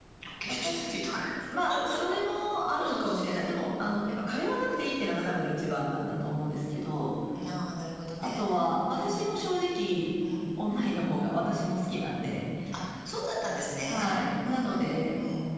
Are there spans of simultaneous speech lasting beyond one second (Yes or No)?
Yes